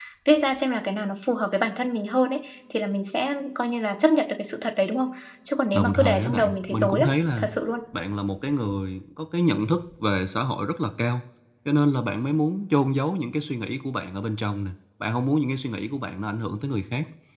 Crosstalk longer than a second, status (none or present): present